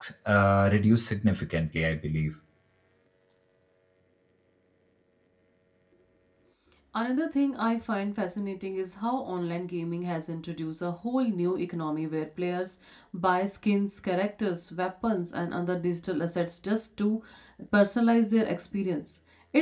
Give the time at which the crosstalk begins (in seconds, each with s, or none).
none